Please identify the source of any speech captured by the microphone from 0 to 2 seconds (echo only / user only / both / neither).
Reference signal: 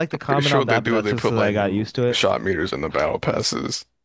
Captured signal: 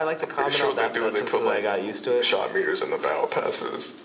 echo only